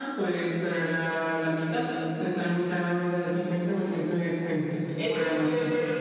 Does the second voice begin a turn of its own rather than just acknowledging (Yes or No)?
Yes